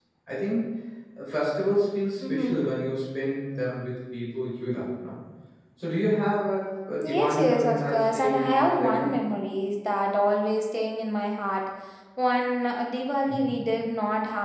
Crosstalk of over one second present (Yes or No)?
Yes